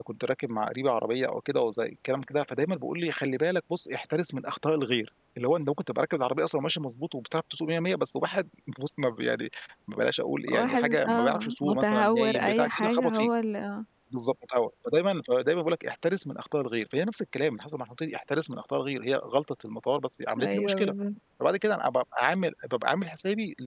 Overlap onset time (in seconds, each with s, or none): 10.5 s